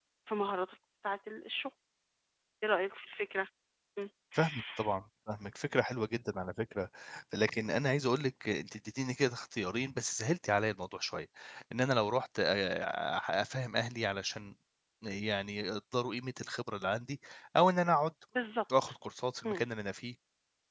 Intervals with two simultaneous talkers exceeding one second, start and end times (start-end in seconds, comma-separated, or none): none